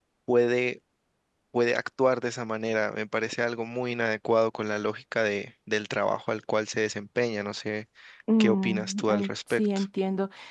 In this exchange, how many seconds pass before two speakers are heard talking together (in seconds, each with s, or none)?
8.4 s